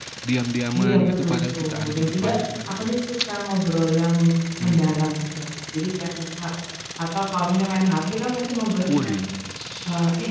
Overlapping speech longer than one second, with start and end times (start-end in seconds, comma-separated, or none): 0.7-2.3